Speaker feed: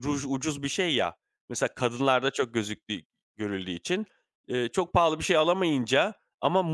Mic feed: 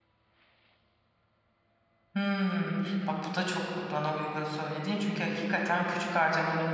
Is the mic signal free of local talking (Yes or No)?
No